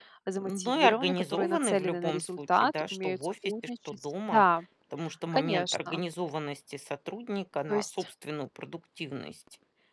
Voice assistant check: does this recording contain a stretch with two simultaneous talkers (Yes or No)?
Yes